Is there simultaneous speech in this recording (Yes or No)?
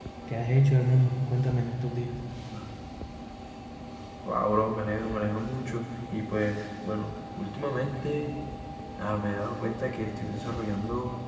No